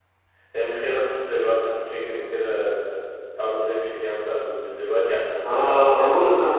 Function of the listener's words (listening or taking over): taking over